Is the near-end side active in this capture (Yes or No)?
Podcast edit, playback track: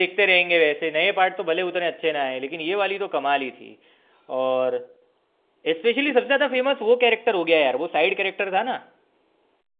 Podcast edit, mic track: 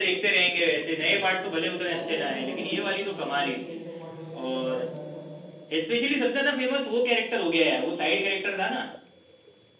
Yes